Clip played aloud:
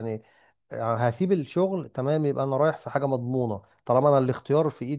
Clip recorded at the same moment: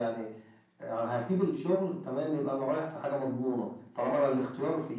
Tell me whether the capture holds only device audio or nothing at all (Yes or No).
Yes